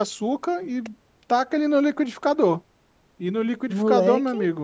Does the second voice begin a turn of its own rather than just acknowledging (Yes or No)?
No